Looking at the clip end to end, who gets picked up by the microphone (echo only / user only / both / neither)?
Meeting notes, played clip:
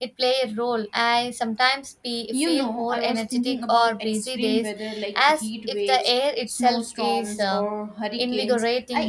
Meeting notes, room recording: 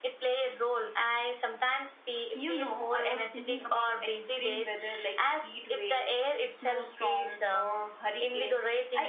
echo only